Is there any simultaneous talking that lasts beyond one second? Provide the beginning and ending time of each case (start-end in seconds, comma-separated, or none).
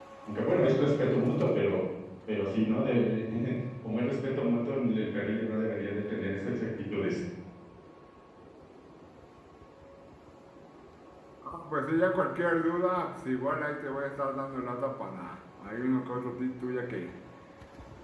none